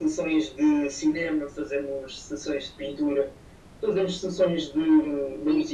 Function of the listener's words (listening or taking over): listening